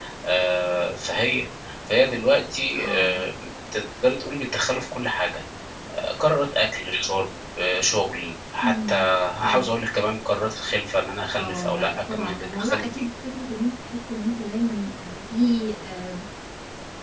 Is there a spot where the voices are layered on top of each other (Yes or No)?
Yes